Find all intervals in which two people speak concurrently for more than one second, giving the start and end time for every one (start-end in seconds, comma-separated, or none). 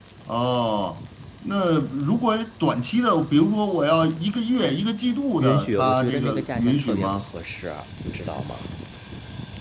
5.4-7.2